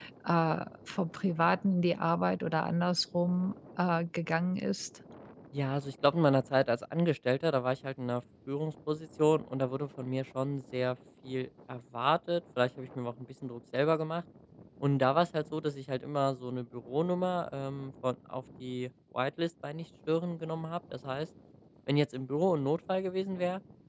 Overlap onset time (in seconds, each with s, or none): none